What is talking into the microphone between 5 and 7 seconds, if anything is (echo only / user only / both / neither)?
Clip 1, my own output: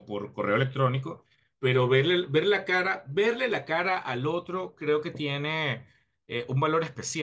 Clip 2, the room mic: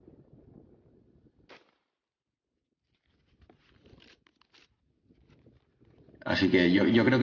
user only